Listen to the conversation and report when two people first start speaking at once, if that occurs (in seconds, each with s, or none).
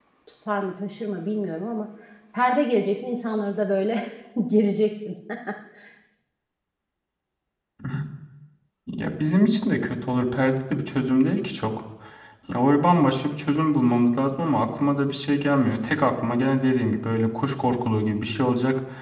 none